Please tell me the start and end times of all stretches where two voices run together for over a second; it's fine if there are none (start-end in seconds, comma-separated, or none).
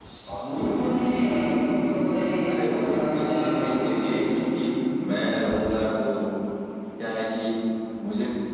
2.5-4.3